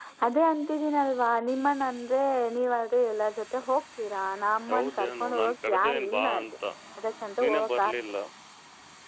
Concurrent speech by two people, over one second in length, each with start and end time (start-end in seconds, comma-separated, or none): 4.7-6.4